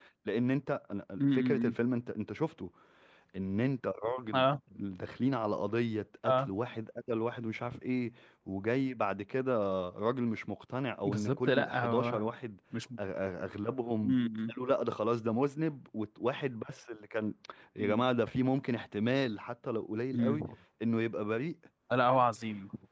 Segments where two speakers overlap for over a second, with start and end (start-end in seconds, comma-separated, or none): 11.1-12.2